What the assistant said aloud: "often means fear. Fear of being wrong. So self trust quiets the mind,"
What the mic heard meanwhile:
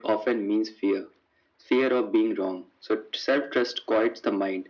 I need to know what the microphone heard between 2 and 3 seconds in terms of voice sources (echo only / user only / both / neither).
echo only